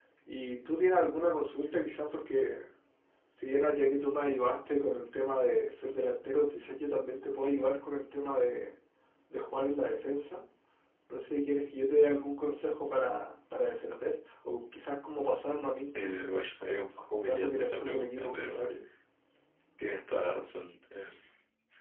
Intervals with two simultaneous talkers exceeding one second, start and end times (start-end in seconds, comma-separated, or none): 17.1-18.6